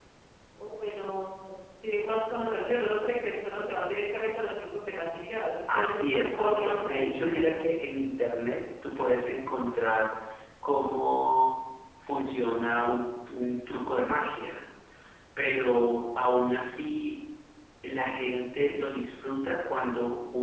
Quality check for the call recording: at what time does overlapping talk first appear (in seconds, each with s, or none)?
5.7 s